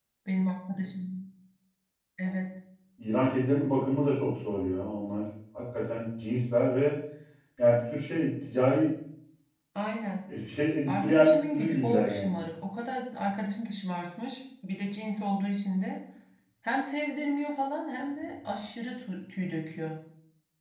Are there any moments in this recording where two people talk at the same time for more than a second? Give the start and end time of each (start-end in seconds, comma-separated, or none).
10.9-12.4